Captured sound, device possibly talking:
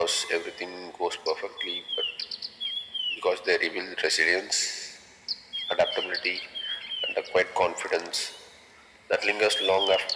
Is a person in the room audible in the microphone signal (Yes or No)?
No